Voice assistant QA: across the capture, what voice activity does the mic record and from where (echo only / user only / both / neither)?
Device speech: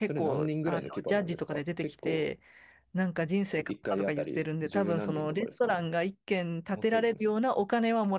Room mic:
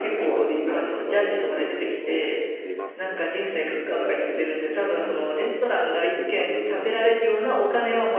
both